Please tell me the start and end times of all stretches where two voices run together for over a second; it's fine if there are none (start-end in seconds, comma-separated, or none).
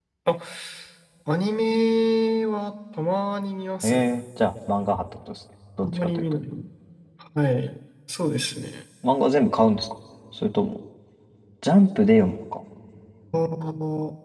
none